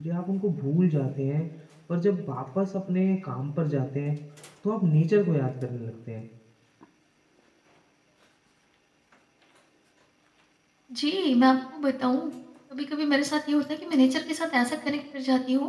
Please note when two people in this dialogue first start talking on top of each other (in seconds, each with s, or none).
none